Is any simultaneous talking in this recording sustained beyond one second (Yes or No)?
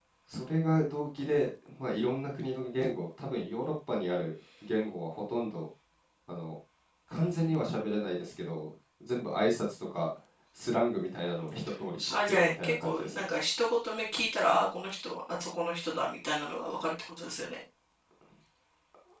Yes